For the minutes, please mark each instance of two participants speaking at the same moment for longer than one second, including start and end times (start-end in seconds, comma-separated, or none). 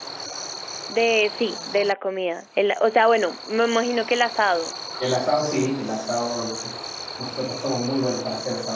none